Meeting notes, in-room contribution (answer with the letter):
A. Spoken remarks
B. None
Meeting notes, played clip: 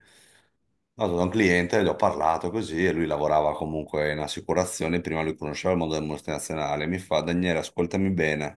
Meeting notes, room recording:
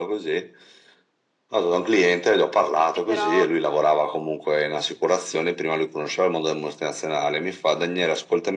A